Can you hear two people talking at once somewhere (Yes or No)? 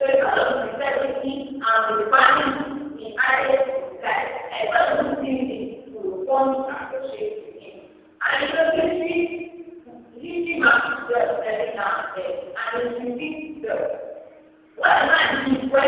No